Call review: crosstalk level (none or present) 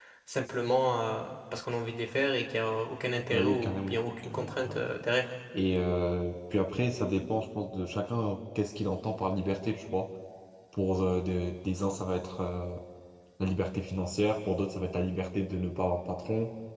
present